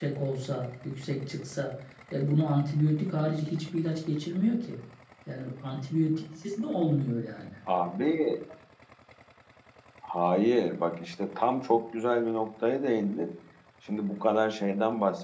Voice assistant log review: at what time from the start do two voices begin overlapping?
none

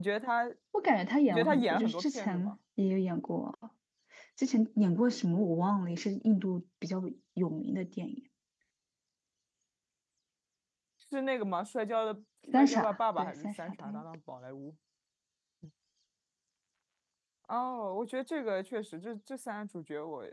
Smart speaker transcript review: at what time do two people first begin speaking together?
1.3 s

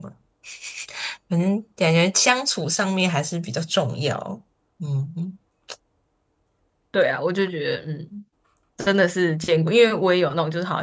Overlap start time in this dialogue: none

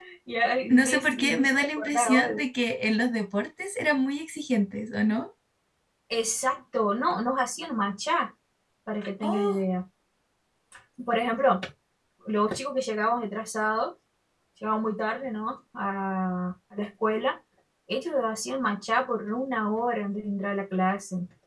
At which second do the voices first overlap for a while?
0.7 s

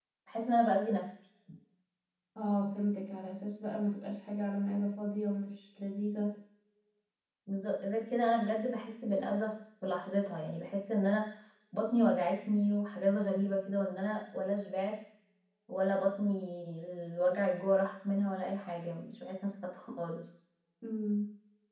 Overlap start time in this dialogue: none

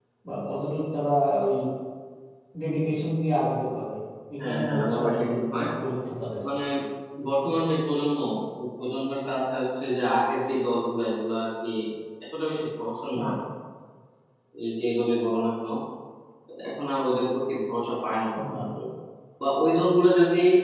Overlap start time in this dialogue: 4.4 s

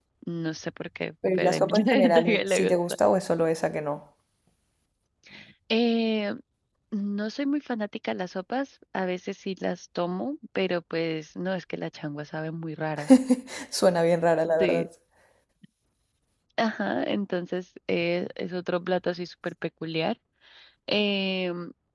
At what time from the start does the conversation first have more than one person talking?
1.4 s

